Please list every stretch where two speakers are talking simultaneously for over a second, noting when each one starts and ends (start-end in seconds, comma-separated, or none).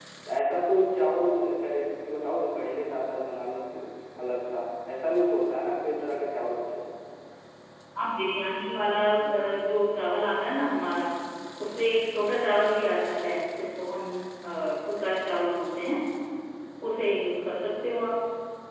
none